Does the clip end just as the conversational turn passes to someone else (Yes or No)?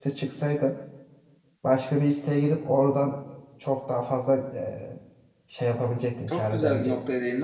Yes